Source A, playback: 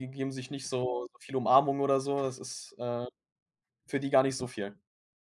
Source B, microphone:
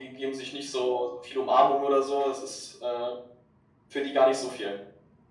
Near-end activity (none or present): none